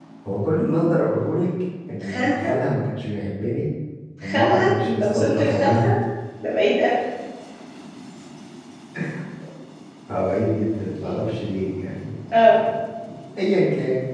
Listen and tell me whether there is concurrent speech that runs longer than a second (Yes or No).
Yes